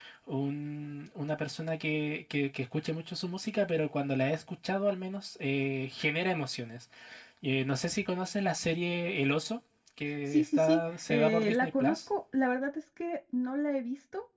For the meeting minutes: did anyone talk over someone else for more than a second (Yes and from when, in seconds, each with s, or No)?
Yes, from 10.3 s